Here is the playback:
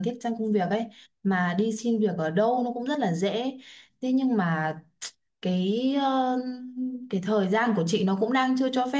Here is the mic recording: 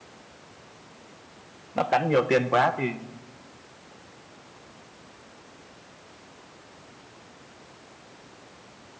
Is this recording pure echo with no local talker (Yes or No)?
No